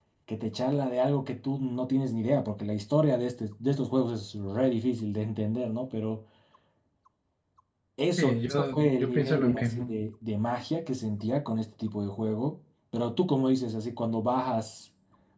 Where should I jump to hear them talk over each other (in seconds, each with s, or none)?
8.2 s